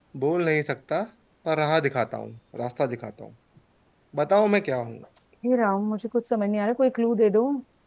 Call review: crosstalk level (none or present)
none